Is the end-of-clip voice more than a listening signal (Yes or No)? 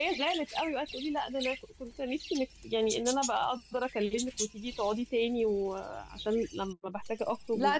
Yes